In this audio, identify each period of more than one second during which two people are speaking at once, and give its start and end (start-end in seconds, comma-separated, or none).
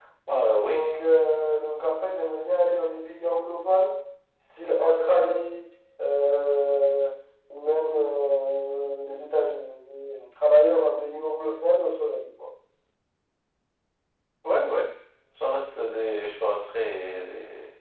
none